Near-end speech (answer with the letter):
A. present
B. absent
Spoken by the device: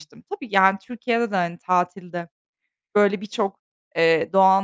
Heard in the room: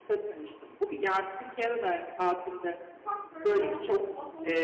A